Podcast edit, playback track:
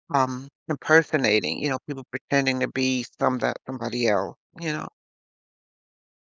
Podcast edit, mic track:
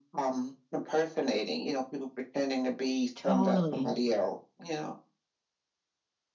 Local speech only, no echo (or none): Totally.